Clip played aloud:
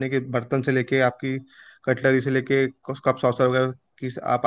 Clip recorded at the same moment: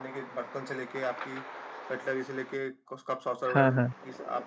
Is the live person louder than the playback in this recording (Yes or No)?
Yes